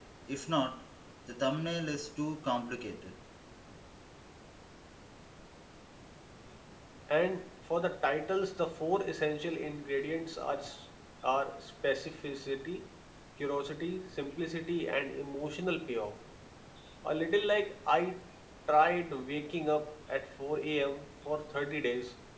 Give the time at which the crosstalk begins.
none

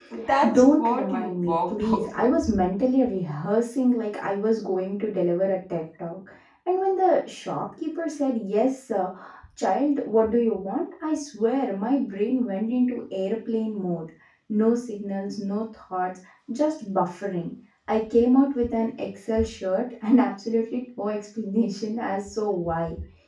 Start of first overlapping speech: 0.5 s

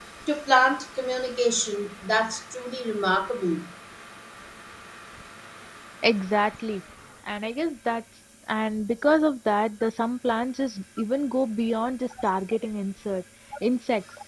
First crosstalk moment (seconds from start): none

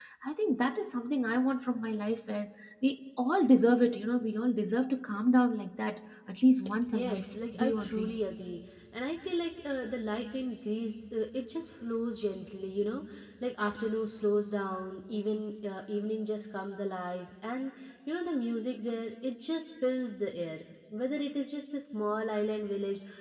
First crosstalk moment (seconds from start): 6.9 s

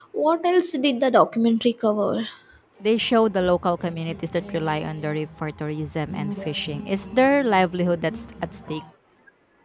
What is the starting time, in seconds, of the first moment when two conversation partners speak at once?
none

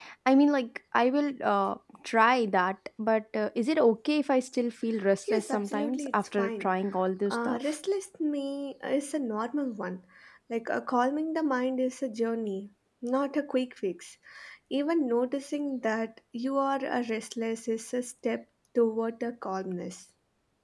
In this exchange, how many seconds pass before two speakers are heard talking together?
5.3 s

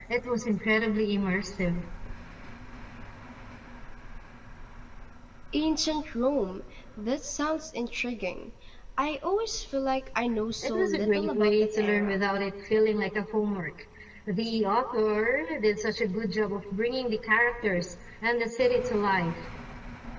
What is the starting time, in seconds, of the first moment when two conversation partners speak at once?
10.6 s

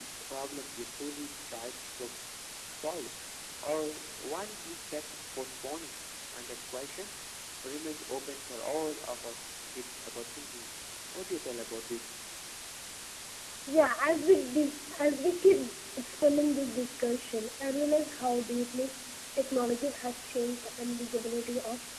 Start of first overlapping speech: none

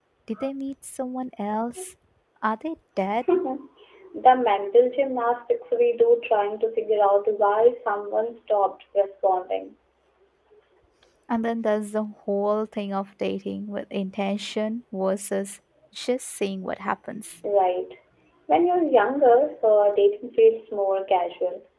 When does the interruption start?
none

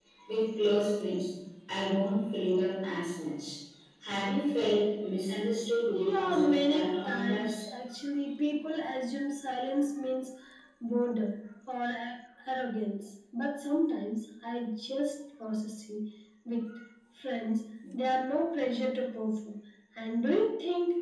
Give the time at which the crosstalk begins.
5.9 s

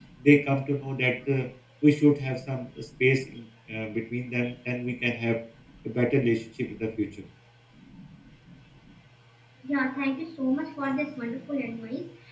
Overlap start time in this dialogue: none

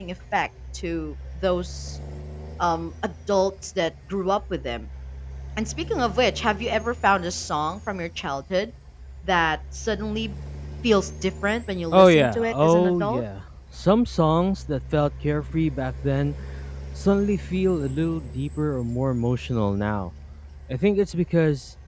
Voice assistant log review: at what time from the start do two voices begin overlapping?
11.9 s

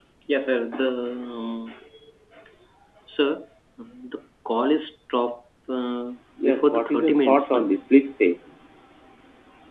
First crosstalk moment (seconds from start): 6.4 s

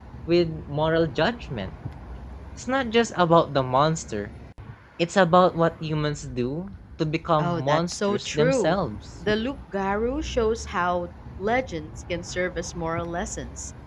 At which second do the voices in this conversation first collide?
7.4 s

